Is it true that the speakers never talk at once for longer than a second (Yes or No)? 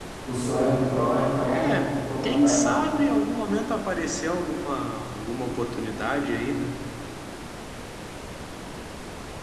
No